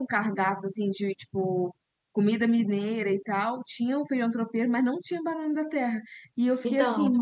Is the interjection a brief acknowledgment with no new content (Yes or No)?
Yes